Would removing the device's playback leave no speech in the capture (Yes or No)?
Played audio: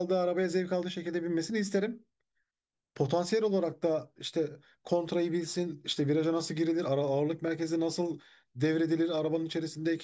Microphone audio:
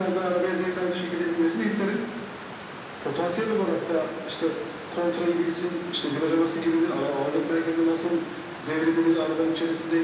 Yes